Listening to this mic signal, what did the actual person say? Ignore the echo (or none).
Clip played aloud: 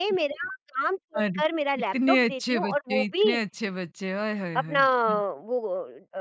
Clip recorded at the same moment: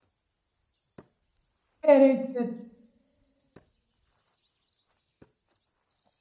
करेक्ट, करेक्ट,